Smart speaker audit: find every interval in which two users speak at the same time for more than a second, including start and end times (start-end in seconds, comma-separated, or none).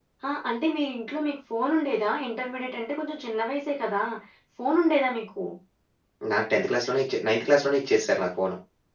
none